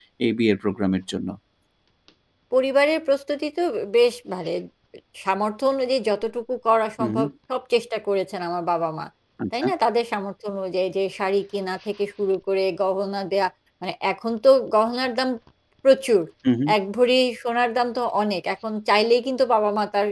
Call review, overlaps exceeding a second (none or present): none